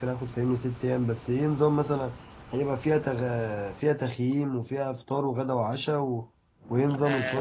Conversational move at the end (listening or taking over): taking over